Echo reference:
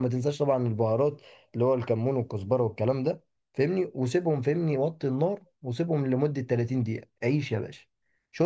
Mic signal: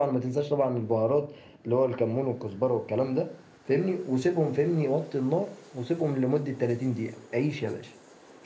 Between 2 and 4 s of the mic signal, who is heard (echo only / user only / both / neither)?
echo only